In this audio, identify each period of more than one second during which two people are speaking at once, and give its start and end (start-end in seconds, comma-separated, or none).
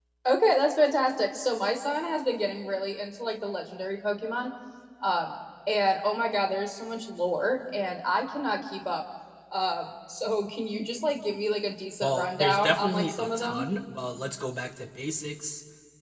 12.0-13.7